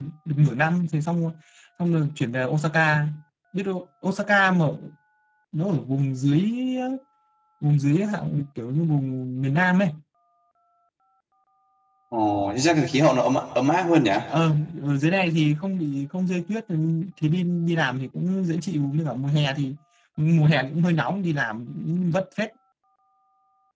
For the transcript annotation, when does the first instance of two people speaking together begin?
none

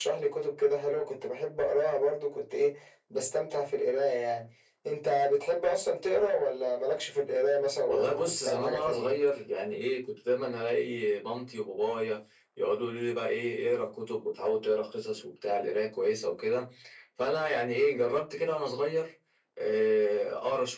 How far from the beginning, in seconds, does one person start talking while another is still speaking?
8 s

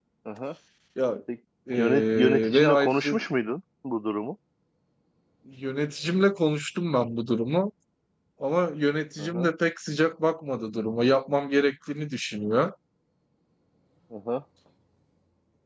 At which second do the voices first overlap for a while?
2 s

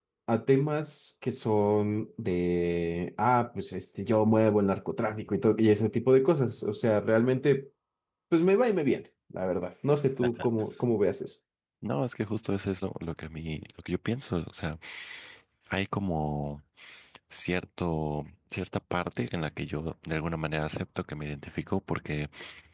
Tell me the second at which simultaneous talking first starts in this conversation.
none

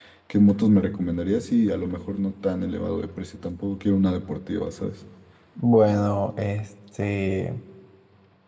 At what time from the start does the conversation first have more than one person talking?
none

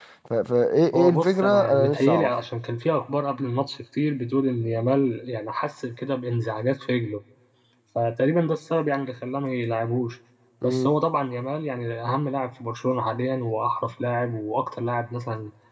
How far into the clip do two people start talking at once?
1 s

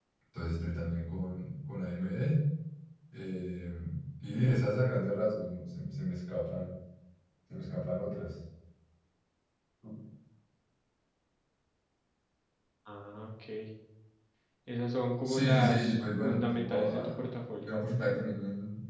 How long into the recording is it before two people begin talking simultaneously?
15 s

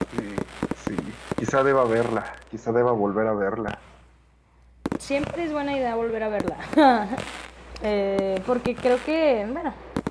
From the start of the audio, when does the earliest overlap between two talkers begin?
none

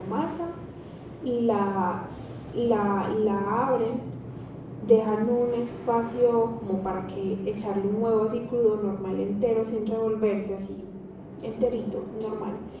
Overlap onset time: none

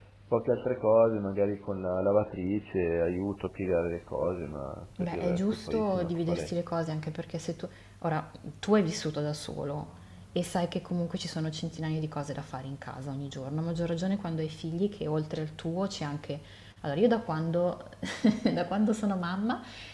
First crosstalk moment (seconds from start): 5 s

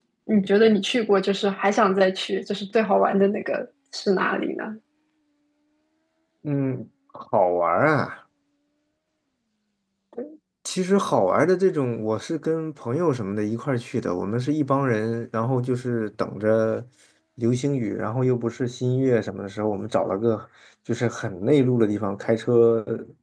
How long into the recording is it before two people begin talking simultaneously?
none

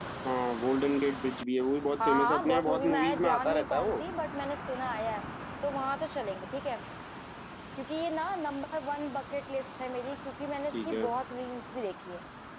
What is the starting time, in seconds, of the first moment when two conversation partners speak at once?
2 s

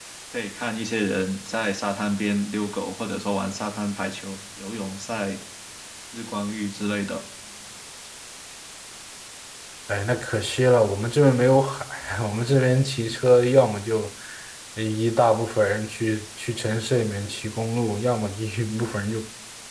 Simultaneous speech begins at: none

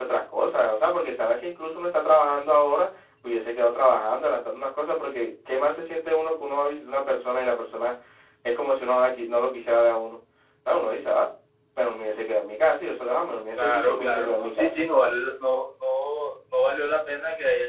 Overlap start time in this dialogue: 14 s

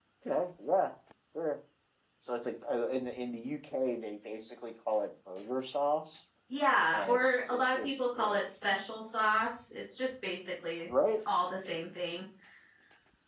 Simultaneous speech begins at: 7 s

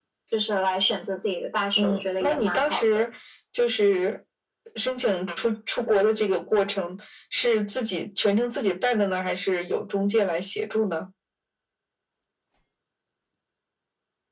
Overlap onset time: 2 s

